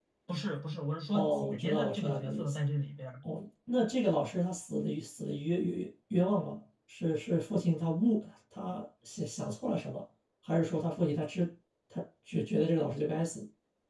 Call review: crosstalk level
present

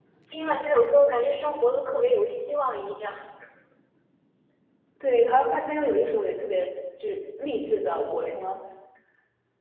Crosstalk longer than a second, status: none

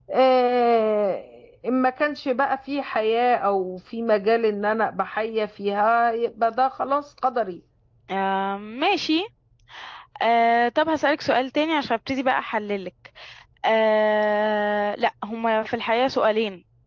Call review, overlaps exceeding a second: none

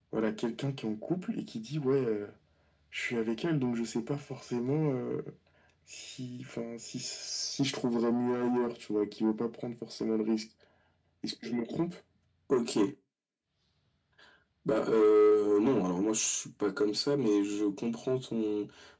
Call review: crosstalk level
none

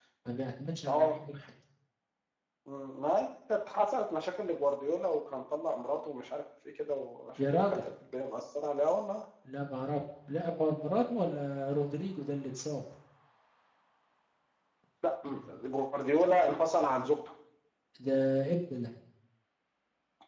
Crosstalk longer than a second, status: none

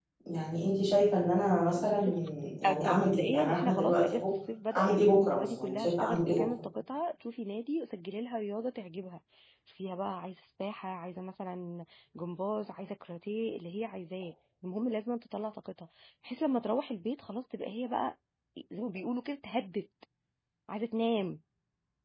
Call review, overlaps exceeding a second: present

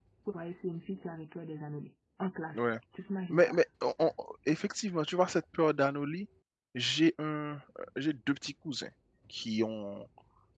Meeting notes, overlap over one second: none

